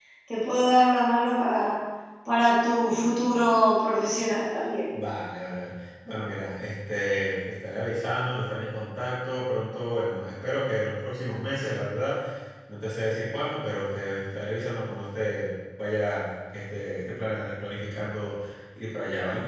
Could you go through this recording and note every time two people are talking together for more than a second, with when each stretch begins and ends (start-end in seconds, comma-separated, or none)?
none